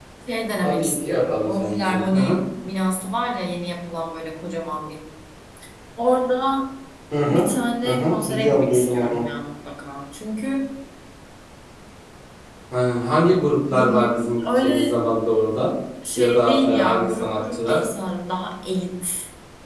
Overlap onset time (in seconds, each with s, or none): 0.6 s